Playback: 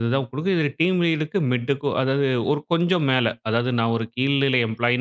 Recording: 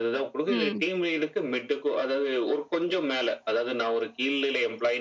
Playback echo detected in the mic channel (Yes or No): Yes